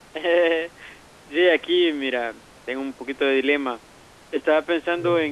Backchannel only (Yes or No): Yes